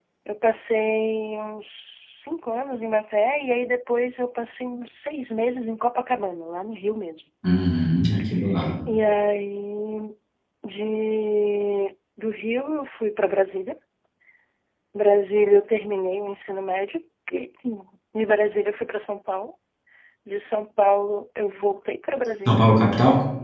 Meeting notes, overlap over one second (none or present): none